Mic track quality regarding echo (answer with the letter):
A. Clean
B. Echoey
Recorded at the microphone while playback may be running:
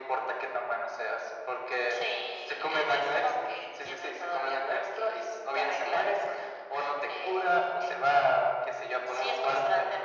B